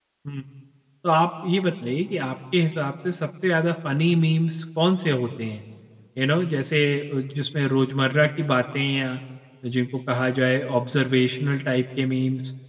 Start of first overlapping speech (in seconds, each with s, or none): none